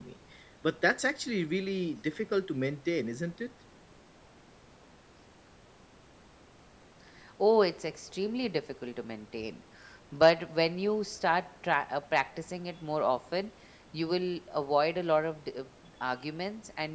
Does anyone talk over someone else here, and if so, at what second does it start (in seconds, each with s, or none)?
none